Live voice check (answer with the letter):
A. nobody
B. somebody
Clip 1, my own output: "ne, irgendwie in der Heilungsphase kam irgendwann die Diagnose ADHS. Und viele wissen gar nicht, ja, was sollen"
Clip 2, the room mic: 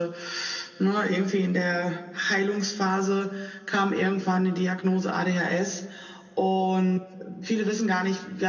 A